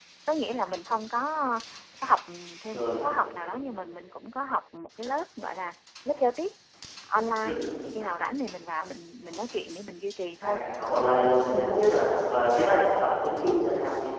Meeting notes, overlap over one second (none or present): none